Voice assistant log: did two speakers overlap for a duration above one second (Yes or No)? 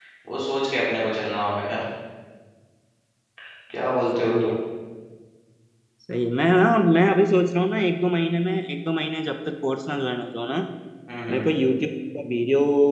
No